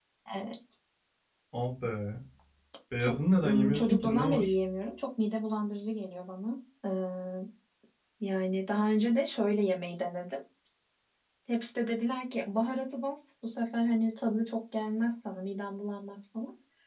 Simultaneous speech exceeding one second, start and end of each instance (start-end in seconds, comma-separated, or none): 3.0-4.6